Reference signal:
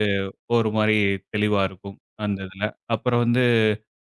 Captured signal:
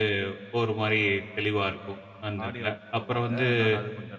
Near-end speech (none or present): present